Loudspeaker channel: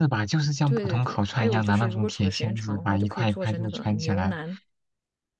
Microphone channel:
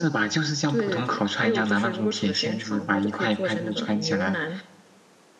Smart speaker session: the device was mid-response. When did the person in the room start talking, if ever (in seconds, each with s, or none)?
none